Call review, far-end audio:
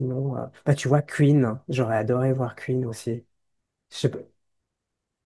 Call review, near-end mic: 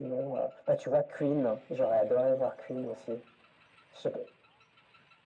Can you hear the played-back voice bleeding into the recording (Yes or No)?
Yes